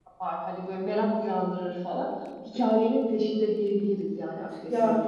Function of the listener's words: taking over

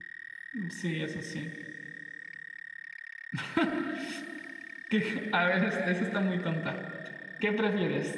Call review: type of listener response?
listening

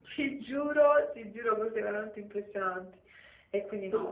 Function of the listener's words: listening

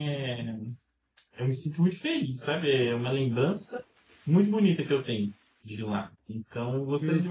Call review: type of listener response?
listening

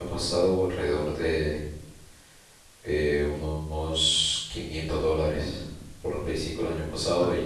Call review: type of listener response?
listening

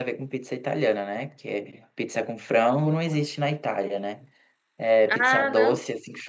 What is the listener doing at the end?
listening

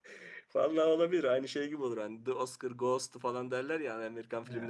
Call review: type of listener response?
listening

